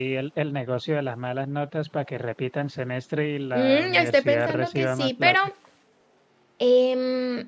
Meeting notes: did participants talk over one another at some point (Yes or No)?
Yes